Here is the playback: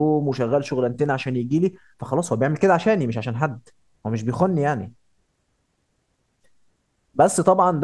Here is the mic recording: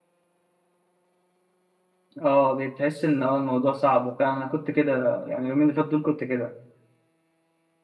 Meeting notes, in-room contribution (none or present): present